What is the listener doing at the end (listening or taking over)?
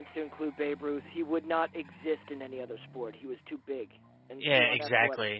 taking over